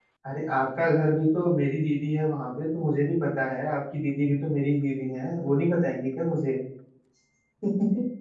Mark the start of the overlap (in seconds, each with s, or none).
none